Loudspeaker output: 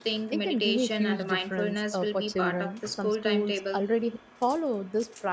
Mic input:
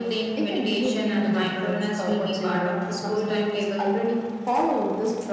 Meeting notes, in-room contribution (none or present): none